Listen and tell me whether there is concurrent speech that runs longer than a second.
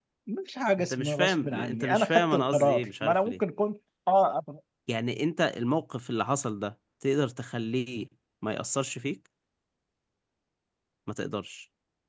Yes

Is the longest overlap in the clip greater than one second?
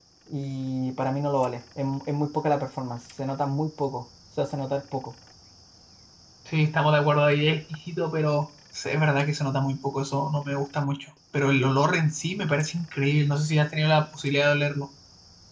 No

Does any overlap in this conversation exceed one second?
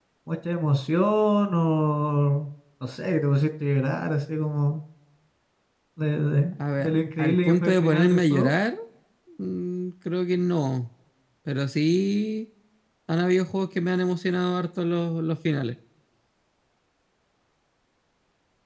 Yes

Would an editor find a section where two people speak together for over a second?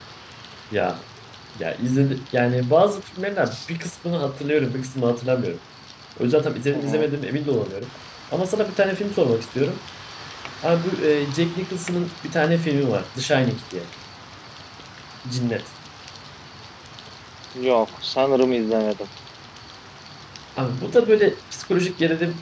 No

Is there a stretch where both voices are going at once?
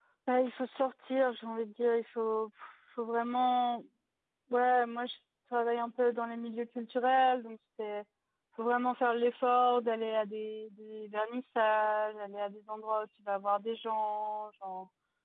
No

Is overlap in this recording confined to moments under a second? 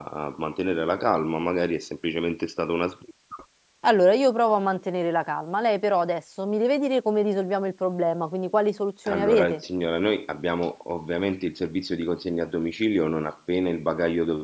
Yes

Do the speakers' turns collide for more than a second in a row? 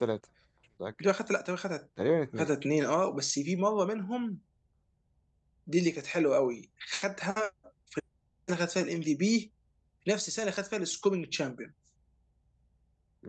No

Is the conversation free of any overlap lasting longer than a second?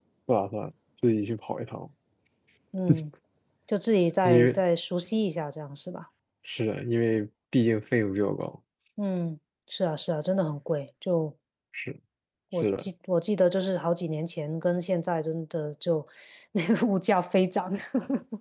Yes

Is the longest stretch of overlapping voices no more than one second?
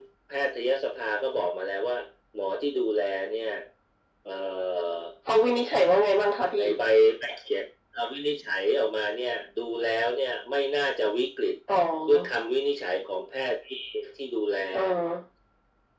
Yes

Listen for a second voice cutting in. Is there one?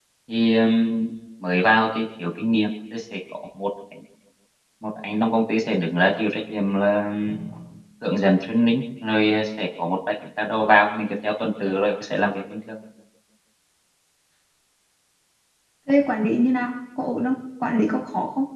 No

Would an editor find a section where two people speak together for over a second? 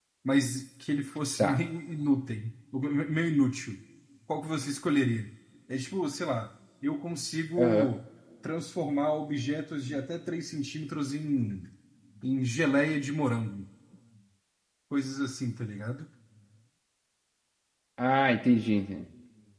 No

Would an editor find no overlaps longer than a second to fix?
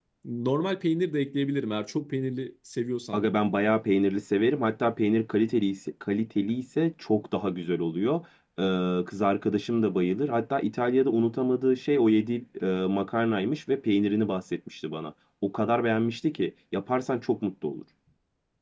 Yes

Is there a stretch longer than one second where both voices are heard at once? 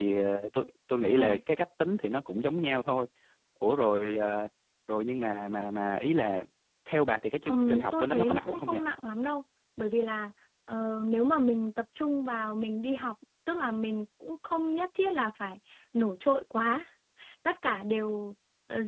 Yes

